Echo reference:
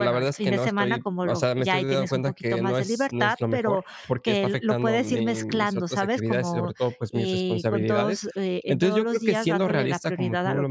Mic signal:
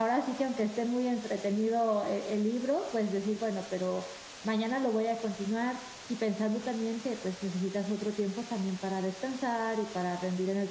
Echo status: none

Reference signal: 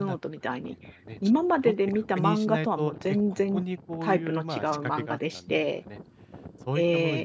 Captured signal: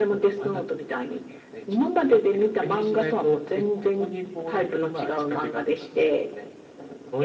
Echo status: present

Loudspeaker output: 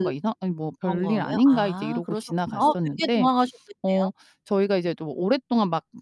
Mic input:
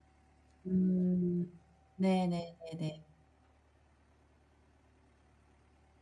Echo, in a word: none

